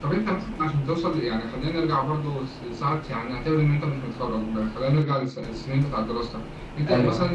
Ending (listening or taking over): listening